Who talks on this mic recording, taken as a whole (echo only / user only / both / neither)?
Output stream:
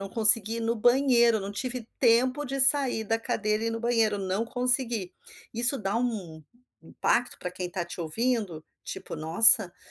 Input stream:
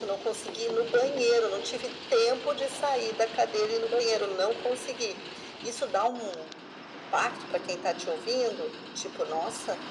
echo only